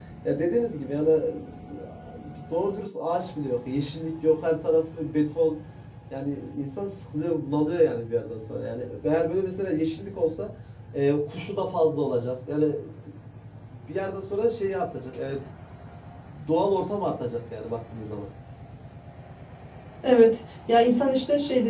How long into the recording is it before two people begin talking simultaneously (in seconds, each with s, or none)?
none